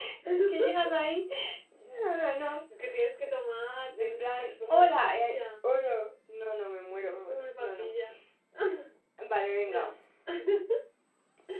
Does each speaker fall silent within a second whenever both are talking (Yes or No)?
No